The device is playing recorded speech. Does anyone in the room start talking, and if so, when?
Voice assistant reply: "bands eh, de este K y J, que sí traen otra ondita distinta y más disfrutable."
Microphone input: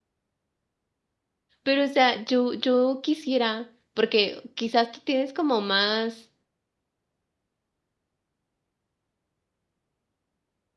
1.6 s

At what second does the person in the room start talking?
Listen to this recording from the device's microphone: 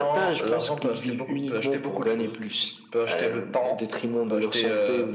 none

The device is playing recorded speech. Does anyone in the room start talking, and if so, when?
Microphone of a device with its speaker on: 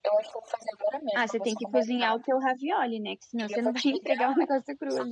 1.1 s

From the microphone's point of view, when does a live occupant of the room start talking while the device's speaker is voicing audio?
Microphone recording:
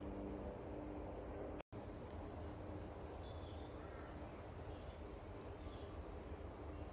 none

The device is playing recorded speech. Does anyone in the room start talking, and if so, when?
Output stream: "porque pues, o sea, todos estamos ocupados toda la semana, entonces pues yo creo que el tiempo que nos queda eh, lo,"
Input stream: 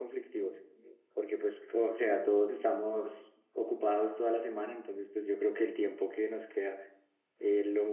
none

